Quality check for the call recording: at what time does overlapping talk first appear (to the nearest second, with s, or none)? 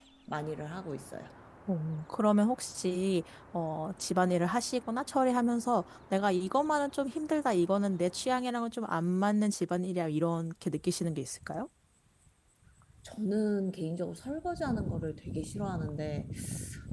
none